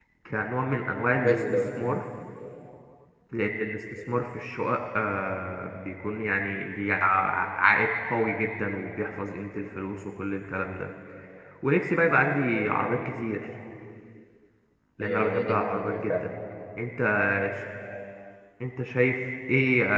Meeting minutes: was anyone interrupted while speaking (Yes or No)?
Yes